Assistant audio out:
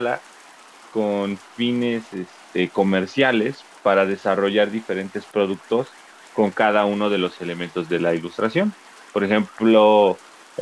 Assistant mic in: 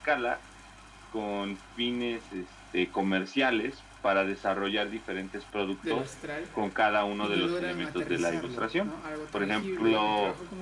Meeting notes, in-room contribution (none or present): present